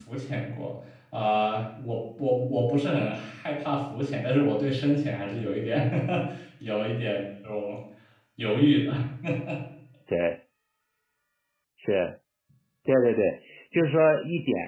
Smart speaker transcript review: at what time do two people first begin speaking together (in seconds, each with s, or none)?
none